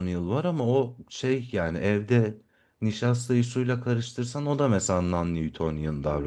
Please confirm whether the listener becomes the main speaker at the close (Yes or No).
Yes